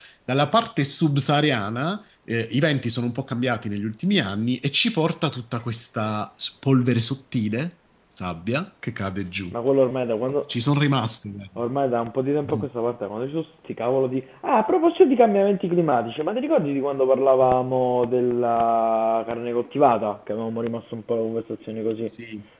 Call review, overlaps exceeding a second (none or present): none